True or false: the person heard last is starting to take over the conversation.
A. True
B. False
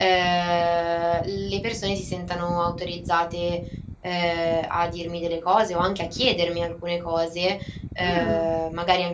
B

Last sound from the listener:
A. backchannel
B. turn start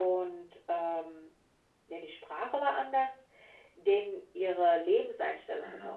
A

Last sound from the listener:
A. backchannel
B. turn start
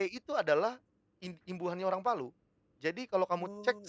A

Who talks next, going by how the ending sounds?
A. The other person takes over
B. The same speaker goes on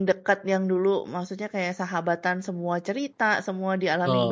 A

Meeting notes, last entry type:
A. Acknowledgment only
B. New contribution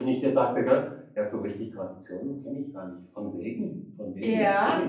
B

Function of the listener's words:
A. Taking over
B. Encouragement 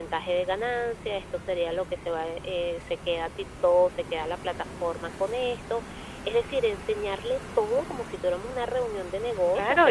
A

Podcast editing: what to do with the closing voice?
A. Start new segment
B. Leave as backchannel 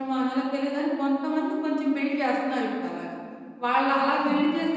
B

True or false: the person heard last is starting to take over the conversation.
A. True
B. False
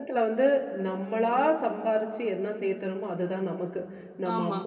B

